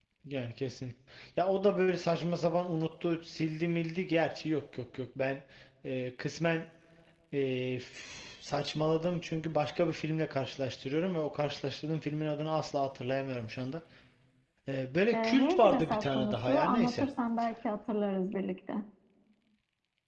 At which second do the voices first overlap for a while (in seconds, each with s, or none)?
15.1 s